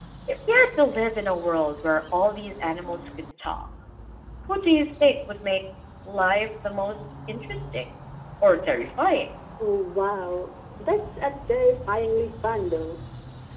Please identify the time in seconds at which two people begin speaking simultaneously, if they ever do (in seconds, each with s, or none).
none